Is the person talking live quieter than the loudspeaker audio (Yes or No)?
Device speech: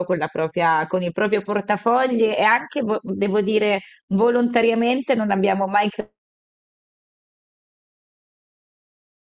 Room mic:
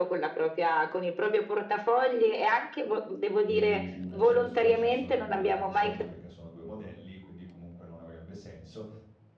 Yes